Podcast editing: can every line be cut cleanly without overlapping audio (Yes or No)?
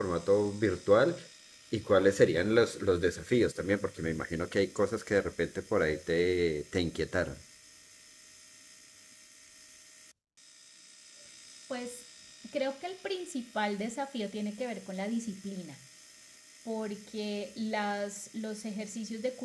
Yes